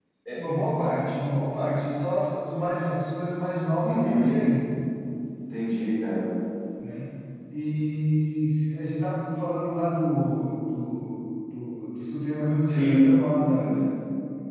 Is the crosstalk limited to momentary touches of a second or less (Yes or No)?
Yes